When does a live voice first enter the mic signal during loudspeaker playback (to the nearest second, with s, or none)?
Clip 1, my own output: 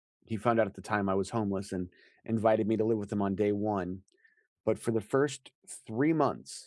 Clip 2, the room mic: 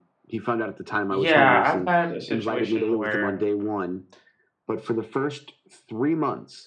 1 s